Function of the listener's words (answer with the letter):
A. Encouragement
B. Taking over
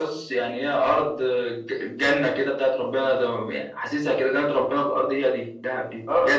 B